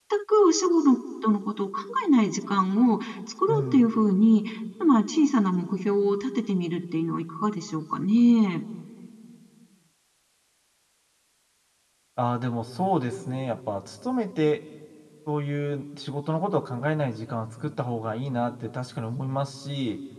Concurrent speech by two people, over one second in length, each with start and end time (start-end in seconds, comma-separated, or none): none